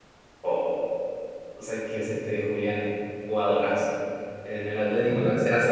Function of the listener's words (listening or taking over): listening